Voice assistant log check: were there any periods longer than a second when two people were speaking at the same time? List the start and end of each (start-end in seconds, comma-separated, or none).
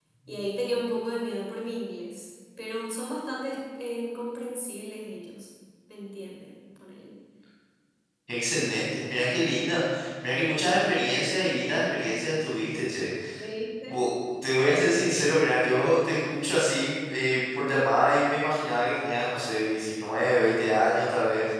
none